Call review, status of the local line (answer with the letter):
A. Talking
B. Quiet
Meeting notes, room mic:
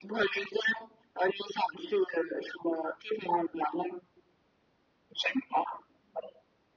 B